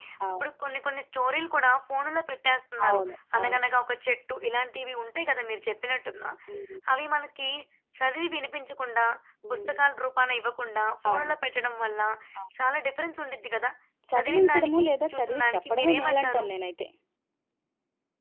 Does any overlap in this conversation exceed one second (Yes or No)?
Yes